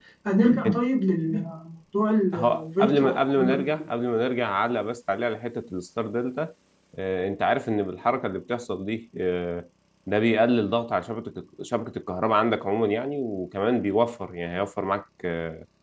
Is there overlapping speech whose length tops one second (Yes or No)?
Yes